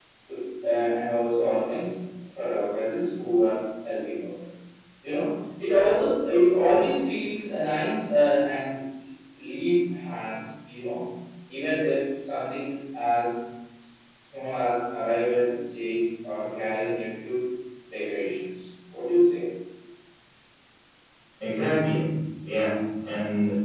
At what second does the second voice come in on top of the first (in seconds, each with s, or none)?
none